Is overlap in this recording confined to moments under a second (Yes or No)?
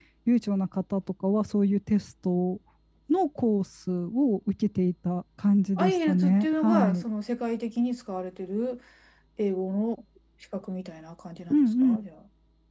No